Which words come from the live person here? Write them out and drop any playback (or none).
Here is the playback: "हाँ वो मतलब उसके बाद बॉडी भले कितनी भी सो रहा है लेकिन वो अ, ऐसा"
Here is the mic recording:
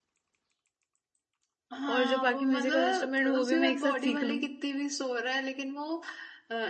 और जो बाकी म्यूजिकल इंस्ट्रूमेंट वो भी मैं एक साथ सीख लूं